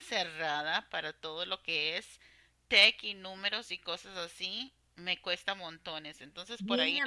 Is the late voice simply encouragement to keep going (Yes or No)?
No